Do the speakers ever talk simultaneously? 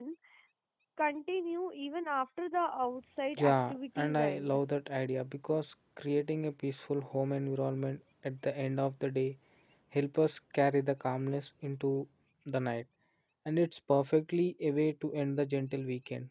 Yes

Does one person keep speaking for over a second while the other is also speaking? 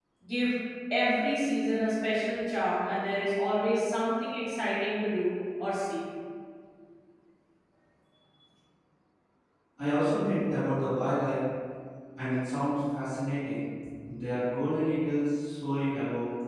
No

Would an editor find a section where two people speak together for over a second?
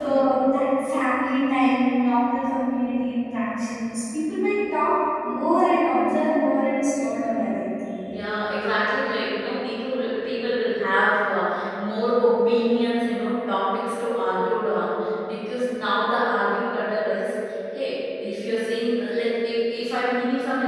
No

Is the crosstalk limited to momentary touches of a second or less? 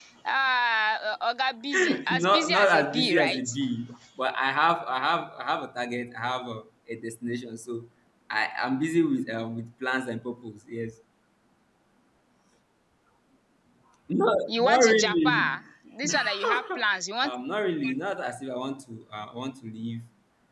No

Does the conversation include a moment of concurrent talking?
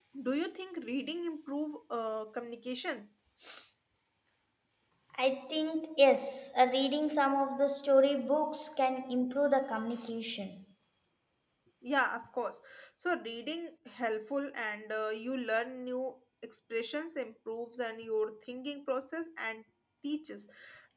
No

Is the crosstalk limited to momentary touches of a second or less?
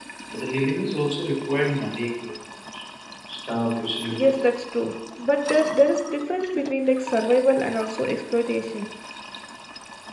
Yes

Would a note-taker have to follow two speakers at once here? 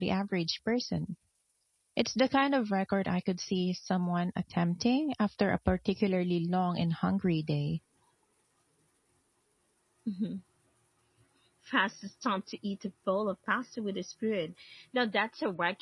No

